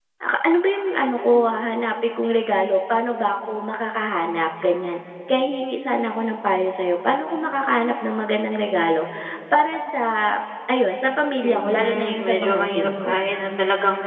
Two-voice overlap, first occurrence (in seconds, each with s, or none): 11.4 s